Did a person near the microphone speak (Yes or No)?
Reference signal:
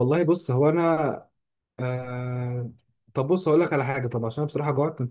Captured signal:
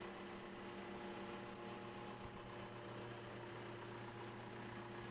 No